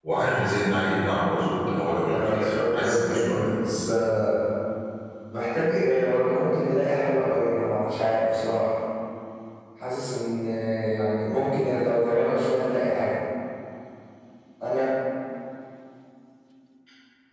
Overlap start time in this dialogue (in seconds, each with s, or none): 2.1 s